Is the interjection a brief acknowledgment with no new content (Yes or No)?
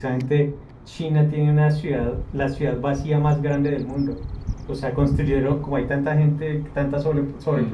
Yes